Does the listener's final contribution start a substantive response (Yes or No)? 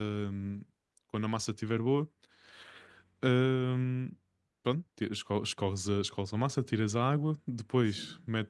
No